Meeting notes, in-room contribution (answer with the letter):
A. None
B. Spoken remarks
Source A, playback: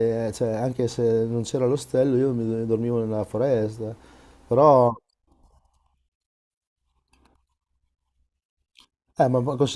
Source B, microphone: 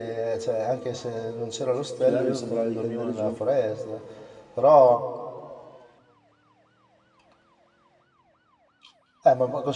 B